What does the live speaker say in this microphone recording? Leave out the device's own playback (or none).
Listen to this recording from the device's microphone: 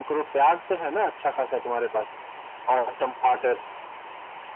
none